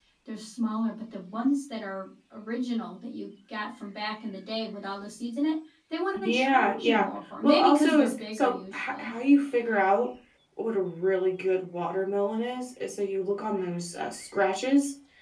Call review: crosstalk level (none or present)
present